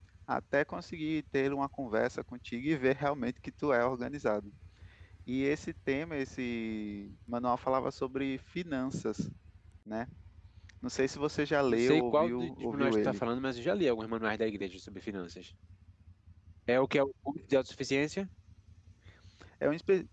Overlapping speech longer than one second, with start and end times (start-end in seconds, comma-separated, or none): 11.7-13.2